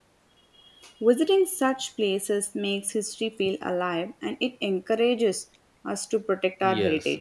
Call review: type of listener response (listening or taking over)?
taking over